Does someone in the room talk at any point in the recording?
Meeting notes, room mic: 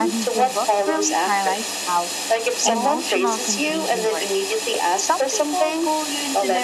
Yes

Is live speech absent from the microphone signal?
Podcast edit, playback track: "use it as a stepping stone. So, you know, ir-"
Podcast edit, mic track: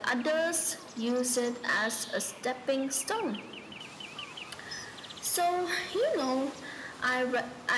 Yes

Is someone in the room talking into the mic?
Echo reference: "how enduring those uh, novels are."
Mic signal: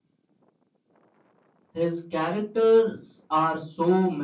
Yes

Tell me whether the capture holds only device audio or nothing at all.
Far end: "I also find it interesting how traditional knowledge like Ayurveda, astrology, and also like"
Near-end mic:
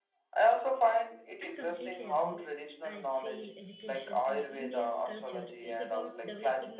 No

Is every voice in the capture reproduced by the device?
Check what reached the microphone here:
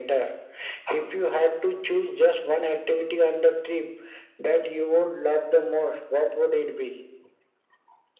Yes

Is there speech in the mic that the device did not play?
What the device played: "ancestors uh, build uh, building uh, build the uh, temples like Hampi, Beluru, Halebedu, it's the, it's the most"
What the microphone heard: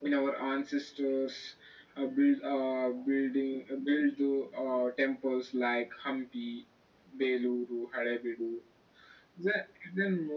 No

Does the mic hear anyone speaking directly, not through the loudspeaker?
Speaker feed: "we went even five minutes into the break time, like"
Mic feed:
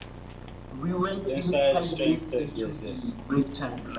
Yes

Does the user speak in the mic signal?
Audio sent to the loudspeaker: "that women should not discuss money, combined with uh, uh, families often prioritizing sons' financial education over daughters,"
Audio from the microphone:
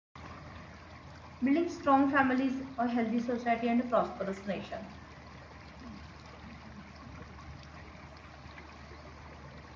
Yes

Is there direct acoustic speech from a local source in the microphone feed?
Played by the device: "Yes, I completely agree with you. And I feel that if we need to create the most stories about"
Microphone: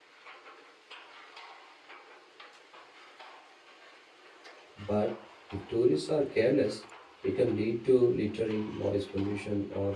Yes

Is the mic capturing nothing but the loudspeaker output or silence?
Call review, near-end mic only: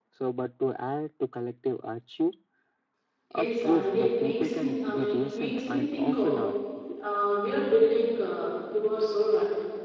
No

